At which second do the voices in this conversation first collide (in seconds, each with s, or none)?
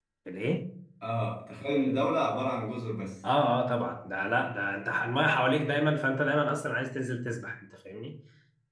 none